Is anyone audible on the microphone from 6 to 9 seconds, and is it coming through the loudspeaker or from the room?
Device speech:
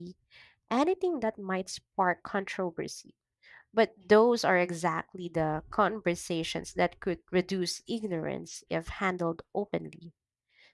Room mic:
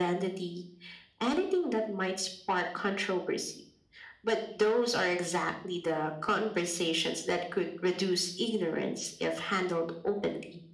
echo only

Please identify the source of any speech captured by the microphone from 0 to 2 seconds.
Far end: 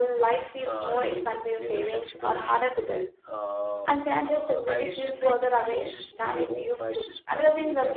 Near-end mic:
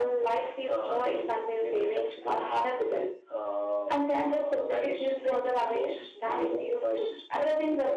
echo only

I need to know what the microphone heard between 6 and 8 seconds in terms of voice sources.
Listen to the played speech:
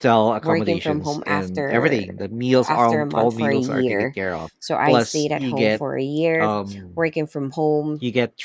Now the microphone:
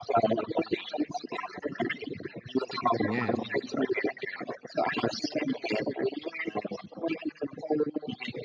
echo only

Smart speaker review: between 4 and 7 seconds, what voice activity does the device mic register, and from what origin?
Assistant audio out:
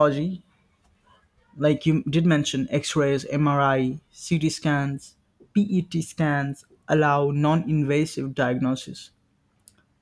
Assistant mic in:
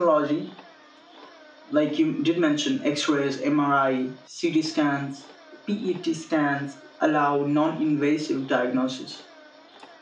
echo only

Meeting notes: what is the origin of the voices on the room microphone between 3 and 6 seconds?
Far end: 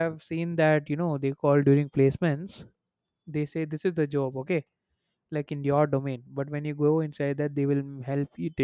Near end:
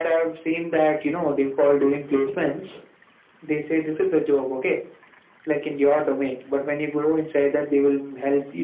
echo only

